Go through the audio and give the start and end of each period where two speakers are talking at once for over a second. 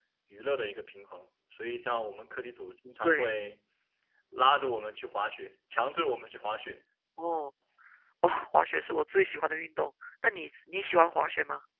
none

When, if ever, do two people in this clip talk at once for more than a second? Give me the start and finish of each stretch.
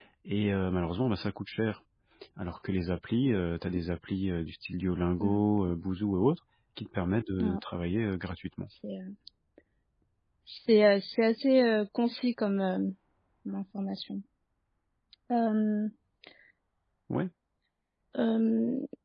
none

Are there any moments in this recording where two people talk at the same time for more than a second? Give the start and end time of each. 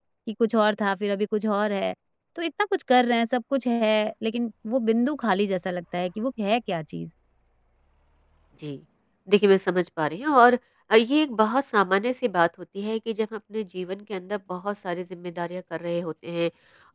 none

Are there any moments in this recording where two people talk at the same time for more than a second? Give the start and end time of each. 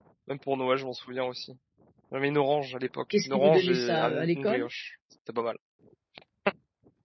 3.1-4.7

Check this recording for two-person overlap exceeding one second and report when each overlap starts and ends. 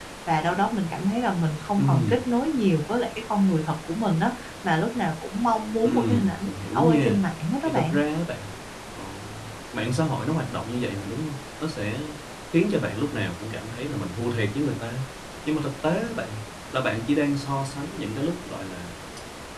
5.8-7.2

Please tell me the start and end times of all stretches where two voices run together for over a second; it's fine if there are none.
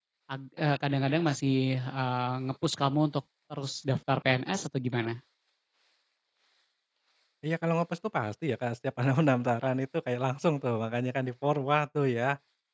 none

